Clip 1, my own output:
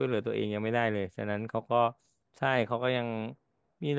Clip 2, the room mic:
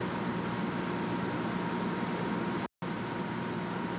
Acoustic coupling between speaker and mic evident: No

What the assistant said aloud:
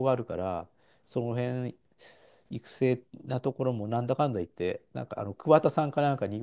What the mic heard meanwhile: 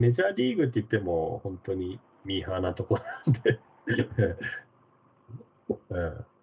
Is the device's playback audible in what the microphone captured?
No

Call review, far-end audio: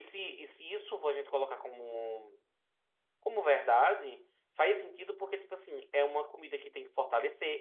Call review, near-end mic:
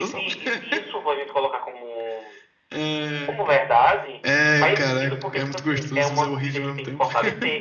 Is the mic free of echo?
No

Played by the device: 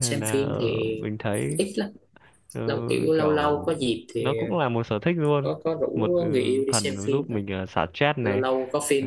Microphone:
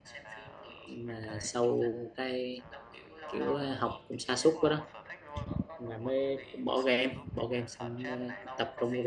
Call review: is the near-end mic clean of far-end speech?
No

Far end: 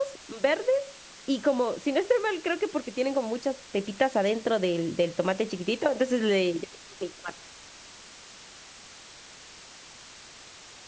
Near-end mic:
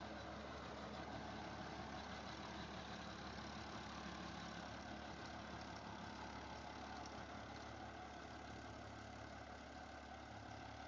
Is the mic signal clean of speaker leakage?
Yes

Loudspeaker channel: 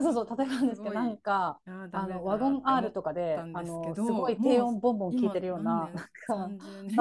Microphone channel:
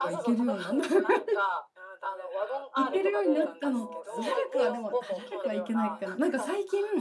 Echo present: Yes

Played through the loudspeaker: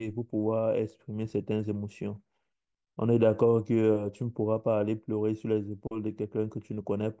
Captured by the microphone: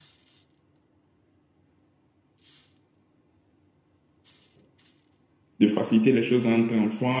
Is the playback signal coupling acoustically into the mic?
No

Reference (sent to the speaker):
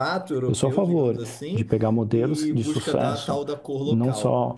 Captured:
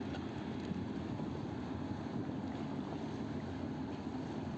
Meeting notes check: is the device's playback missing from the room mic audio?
Yes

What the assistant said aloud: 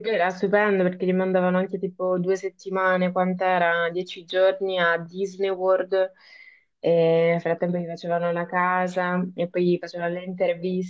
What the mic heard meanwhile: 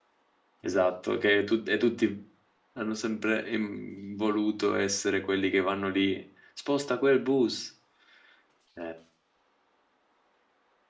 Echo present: No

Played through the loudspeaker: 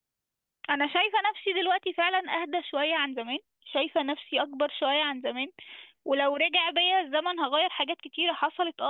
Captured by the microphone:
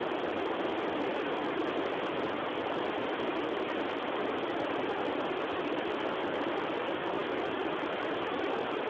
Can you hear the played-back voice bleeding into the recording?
No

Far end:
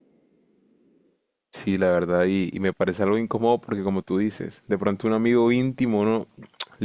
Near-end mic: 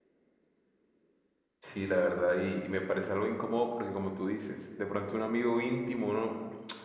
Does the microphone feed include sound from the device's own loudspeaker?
Yes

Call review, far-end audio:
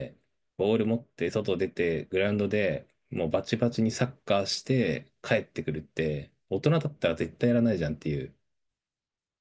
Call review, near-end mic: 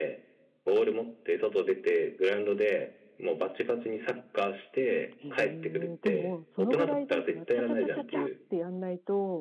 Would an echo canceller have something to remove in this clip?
Yes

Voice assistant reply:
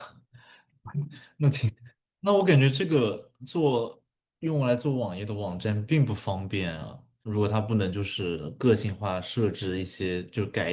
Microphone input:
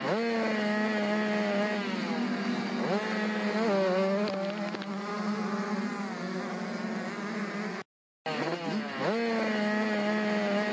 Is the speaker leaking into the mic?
No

